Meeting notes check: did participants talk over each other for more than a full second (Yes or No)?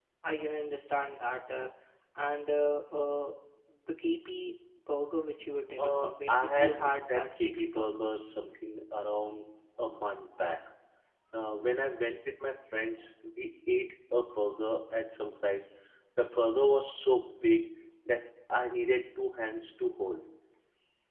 Yes